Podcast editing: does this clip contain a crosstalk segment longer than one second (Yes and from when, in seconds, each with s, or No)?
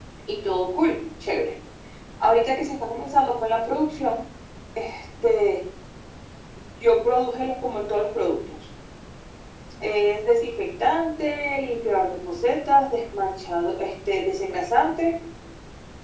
No